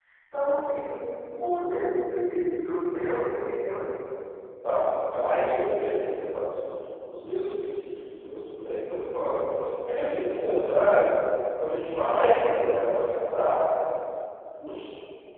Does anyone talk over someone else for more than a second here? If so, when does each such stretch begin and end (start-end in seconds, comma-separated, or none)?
none